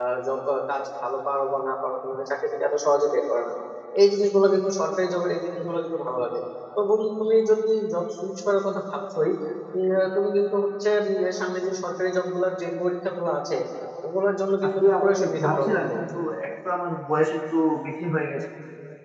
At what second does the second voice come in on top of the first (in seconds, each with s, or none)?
14.6 s